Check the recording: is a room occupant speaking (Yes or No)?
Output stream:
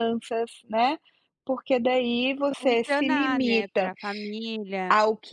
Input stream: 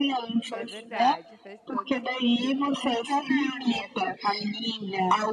Yes